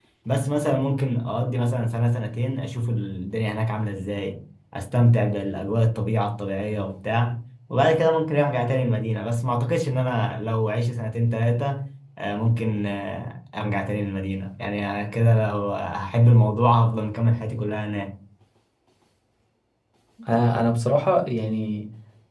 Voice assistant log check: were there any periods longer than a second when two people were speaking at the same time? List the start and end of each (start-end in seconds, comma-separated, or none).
none